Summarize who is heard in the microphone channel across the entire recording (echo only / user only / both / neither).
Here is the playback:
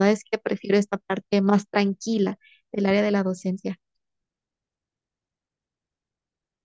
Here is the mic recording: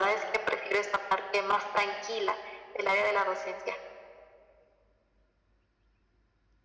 echo only